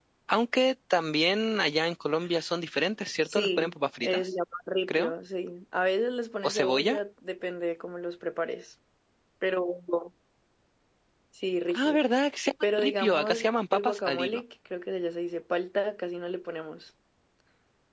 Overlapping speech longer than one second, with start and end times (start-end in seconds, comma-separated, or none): 12.7-14.4